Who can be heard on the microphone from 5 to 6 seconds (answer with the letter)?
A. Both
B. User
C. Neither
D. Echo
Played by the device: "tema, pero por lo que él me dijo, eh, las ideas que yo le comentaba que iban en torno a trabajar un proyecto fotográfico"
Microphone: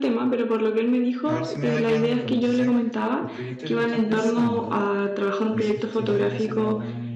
A